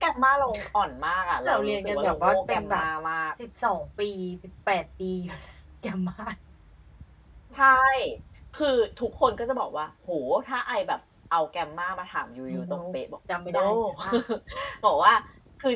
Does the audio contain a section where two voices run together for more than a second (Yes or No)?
Yes